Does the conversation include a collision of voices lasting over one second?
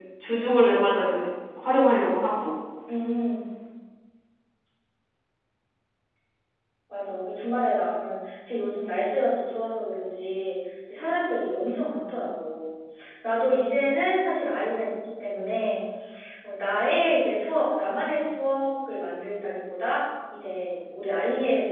No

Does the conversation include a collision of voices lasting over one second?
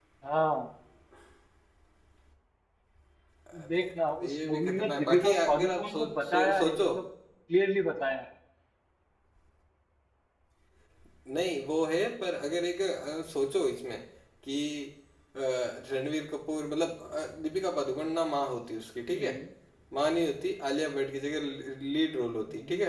Yes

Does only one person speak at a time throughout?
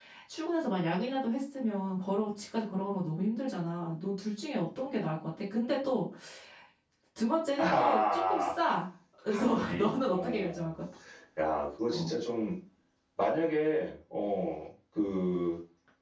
No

